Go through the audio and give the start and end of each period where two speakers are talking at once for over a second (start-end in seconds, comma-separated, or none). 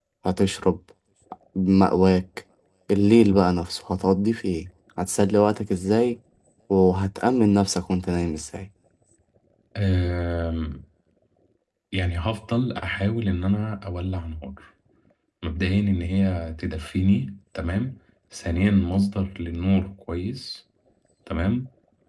none